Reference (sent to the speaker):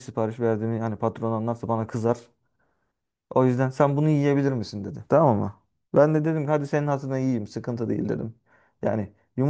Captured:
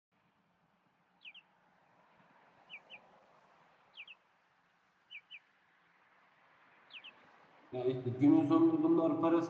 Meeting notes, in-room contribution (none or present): present